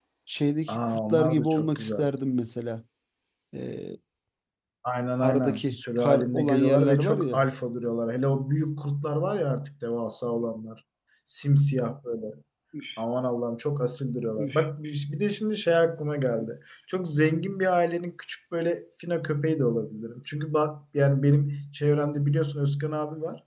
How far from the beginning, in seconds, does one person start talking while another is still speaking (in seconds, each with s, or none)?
0.7 s